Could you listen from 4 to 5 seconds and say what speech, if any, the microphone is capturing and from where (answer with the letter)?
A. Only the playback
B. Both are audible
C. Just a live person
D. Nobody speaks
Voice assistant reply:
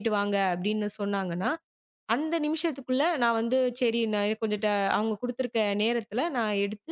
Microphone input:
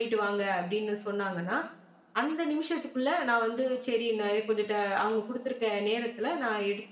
A